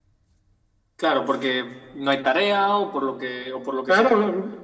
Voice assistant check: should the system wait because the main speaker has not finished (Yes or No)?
No